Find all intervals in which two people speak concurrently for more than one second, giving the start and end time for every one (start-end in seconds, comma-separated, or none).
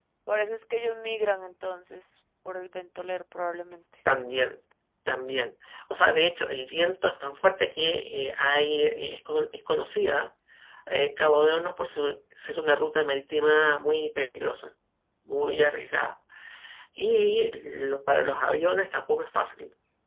none